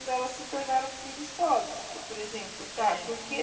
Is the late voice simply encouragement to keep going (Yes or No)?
Yes